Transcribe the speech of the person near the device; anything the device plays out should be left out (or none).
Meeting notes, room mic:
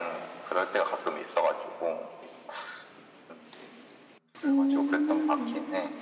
응,